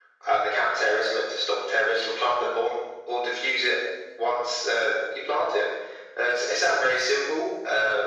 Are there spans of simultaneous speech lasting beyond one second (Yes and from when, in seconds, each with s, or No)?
No